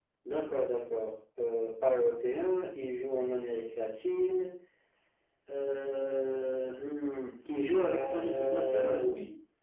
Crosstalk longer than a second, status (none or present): present